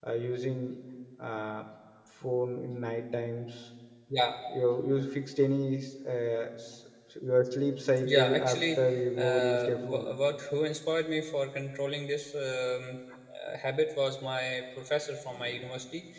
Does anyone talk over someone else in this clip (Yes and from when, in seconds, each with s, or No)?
Yes, from 8.0 s